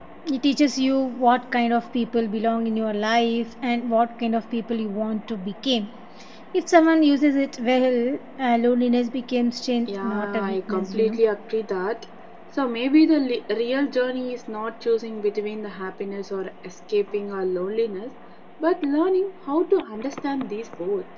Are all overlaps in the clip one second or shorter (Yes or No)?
No